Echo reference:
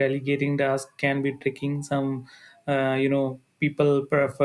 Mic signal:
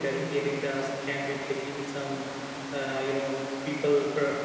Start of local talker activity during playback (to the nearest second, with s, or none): none